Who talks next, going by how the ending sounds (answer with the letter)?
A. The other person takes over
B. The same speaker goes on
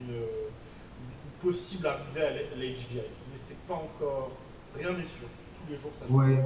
A